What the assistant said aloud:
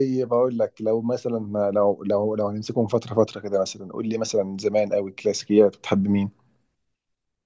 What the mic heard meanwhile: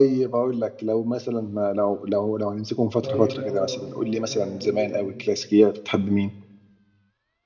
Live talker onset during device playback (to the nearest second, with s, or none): 3 s